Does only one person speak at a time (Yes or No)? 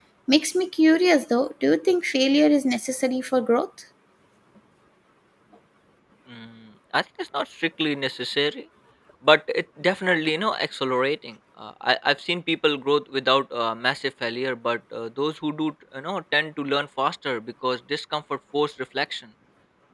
Yes